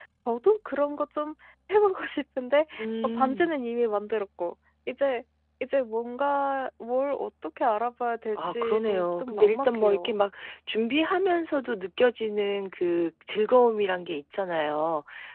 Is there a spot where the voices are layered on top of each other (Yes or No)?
Yes